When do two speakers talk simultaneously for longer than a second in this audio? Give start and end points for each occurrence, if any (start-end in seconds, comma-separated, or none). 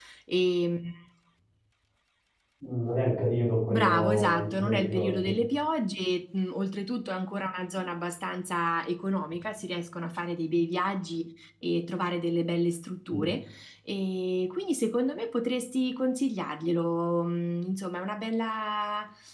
3.7-5.3